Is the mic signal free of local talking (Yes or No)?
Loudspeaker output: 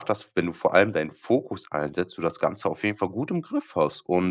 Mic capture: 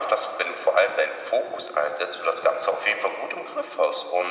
Yes